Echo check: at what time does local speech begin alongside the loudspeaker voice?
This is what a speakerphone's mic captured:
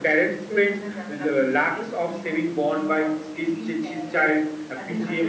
none

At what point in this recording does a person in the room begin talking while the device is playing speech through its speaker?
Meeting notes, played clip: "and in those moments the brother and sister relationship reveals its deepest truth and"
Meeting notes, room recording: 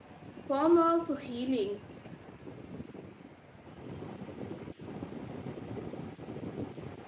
0 s

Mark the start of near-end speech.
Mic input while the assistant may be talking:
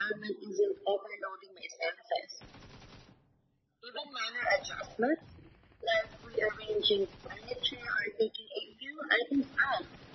none

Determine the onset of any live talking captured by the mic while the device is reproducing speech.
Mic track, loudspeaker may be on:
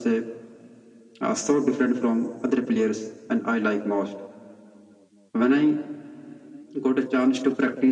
none

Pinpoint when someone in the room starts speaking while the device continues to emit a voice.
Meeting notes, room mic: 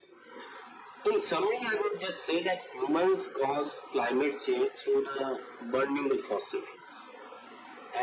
none

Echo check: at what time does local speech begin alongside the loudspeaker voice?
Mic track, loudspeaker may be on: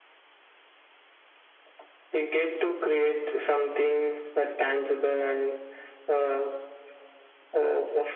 none

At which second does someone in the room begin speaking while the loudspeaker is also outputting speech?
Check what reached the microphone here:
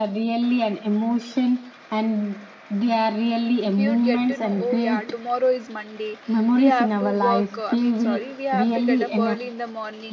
4 s

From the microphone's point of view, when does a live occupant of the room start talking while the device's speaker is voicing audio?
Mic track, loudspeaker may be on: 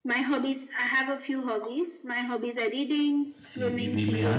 3 s

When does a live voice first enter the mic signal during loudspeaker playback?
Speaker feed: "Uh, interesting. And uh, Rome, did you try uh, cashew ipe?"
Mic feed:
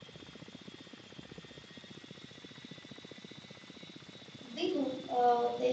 4 s

